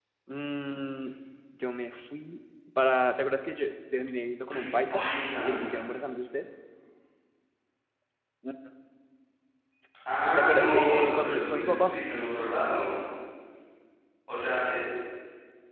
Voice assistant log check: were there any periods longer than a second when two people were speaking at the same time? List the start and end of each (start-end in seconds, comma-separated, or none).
10.4-11.9